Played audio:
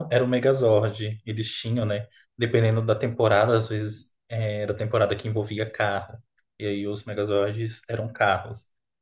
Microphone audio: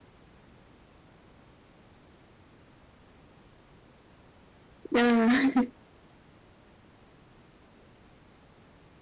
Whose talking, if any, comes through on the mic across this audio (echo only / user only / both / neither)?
user only